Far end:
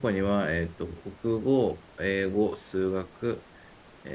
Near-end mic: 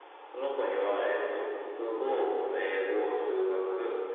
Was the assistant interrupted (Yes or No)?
No